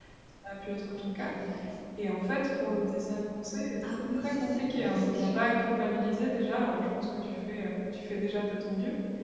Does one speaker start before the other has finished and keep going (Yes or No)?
Yes